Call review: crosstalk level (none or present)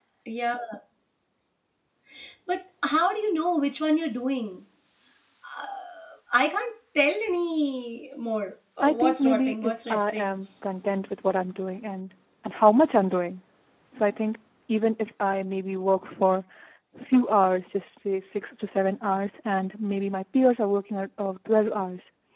present